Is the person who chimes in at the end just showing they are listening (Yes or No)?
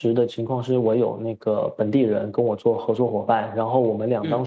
Yes